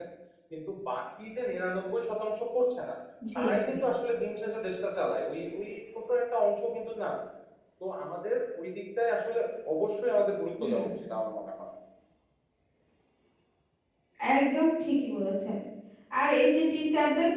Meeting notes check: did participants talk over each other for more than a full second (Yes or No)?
No